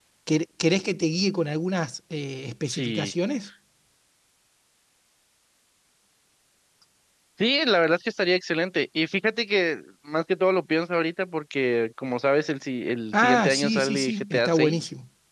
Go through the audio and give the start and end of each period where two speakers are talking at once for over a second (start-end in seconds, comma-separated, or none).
13.1-14.8